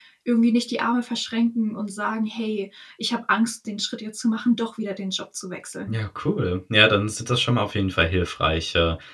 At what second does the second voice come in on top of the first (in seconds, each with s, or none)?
none